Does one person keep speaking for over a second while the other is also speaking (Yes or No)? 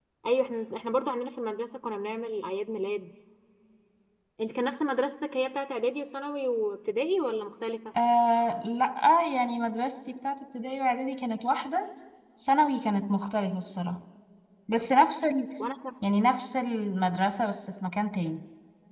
No